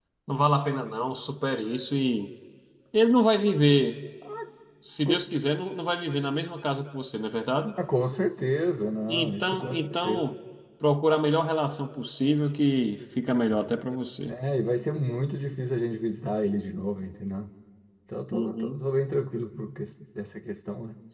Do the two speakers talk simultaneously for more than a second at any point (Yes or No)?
Yes